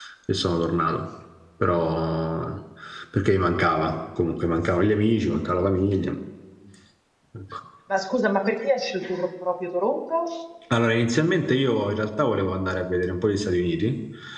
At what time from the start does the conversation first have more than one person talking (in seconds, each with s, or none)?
none